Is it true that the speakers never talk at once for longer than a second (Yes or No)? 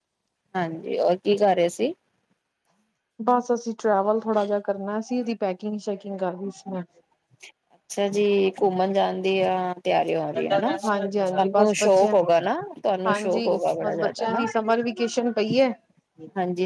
No